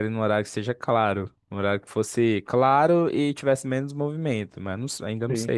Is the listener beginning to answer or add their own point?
Yes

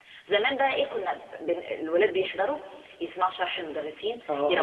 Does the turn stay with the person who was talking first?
Yes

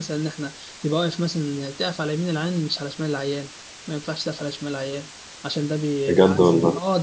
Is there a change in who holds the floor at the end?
No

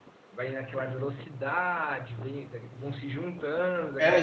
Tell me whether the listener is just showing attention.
No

